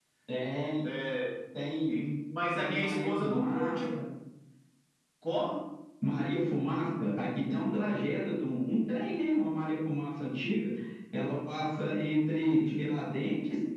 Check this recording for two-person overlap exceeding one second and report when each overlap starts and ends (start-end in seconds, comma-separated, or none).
2.5-4.0